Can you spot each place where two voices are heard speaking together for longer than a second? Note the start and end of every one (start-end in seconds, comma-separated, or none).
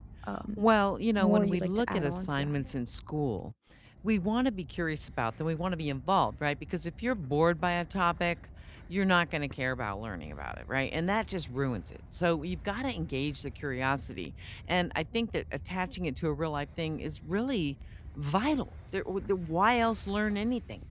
1.2-2.6